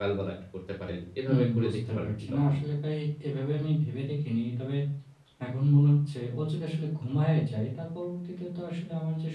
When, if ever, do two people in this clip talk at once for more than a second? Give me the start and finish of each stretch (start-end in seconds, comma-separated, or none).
1.3-2.5